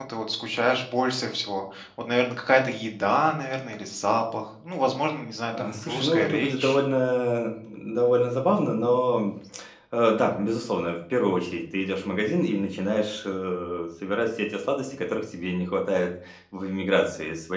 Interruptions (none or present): present